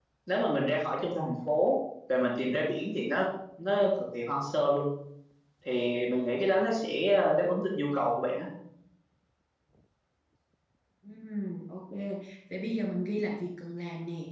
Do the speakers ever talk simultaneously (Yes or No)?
No